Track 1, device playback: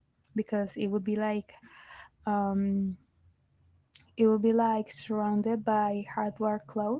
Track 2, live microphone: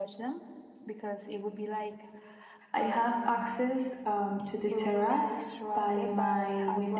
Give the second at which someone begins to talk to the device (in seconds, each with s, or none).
2.7 s